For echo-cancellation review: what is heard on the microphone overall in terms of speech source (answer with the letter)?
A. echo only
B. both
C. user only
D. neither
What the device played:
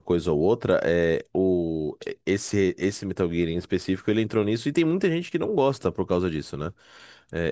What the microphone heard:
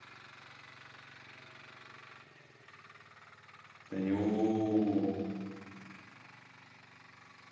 C